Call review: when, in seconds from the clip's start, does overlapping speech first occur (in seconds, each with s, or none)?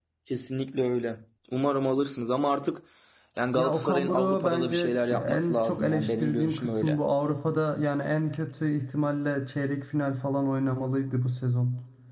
3.5 s